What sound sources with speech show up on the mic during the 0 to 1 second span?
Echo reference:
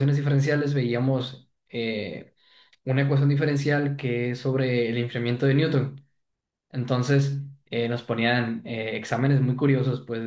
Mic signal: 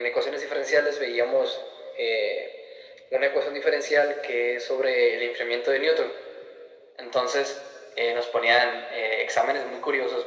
echo only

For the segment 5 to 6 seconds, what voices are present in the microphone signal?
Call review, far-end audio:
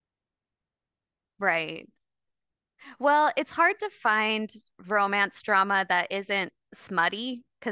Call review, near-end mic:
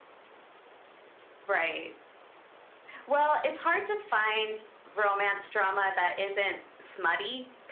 echo only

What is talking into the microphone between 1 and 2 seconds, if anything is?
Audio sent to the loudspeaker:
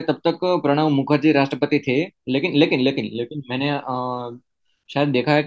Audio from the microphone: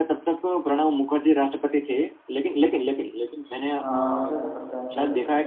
echo only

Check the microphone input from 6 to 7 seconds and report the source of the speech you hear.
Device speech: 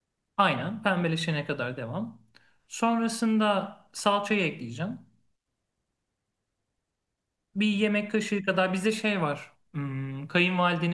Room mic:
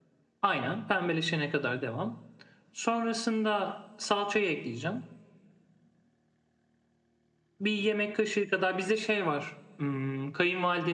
neither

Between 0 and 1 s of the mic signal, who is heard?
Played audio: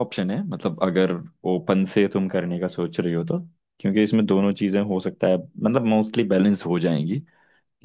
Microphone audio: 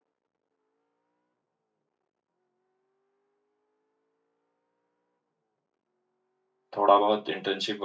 neither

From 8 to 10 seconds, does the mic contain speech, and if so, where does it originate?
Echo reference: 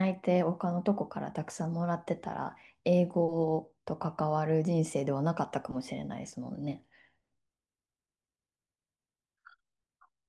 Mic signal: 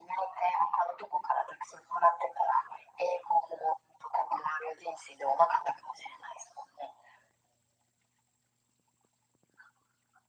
neither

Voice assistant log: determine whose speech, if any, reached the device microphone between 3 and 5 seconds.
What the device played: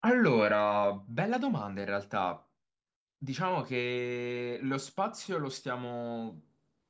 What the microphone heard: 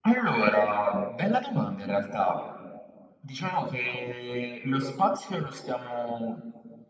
echo only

